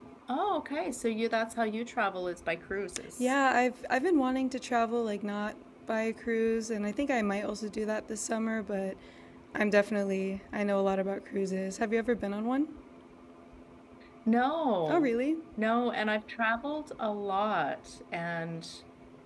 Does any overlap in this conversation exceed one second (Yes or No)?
No